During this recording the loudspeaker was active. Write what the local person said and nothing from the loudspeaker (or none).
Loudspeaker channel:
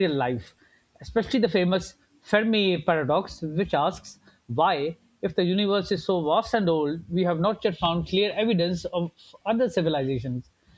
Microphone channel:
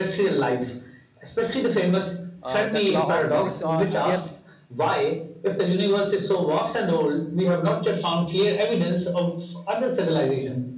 uh, that law of physics uh, appears